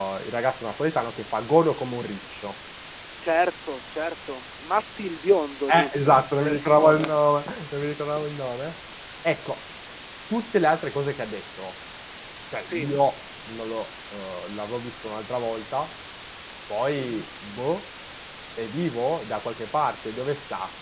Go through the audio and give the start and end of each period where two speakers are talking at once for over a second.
5.7-7.1

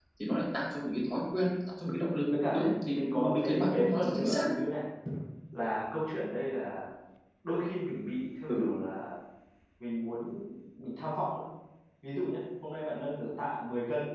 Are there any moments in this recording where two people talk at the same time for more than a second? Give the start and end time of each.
2.5-4.5

